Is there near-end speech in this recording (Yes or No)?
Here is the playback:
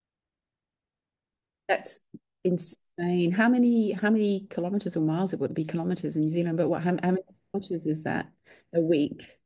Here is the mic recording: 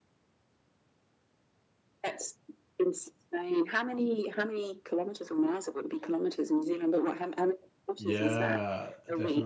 Yes